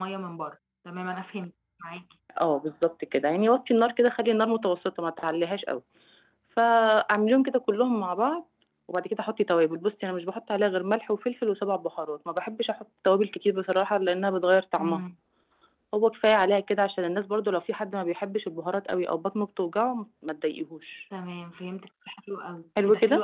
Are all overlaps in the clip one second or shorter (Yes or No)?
Yes